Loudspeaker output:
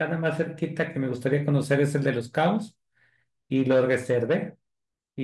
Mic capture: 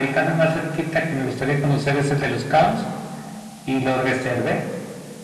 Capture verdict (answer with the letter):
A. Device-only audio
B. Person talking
A